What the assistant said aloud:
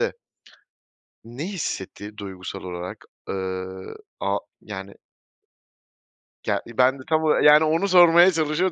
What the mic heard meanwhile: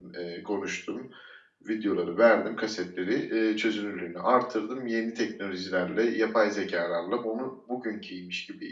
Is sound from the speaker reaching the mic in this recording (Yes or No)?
No